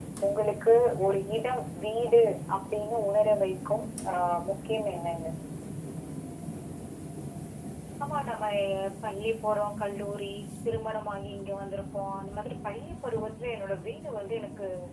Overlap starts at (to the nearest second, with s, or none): none